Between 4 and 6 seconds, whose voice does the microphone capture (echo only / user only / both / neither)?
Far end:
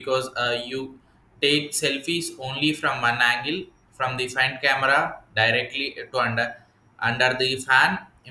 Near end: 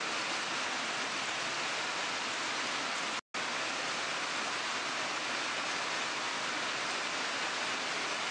neither